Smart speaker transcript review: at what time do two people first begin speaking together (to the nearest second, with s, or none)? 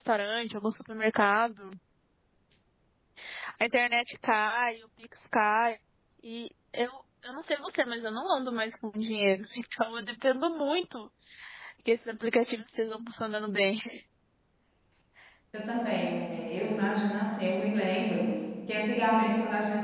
none